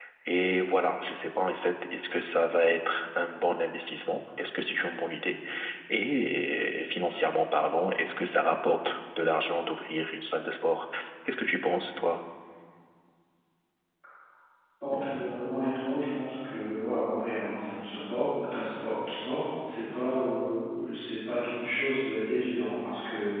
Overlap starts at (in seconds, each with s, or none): none